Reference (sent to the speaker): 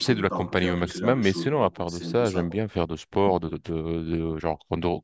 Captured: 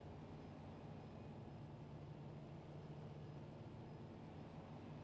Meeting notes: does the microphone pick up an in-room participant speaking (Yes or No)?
No